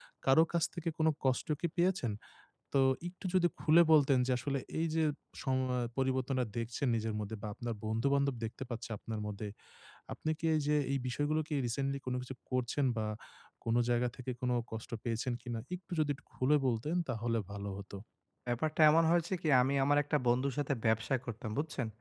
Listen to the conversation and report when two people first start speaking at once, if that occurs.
none

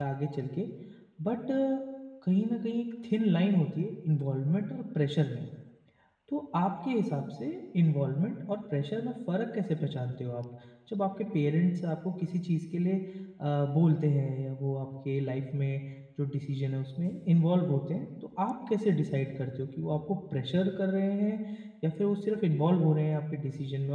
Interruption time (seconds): none

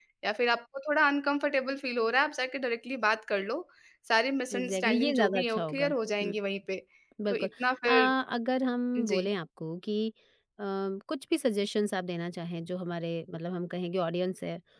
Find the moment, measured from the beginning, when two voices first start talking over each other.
4.5 s

